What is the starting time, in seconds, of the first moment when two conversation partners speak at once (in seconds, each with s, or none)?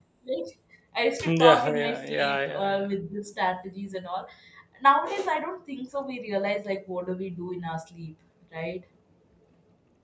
1.2 s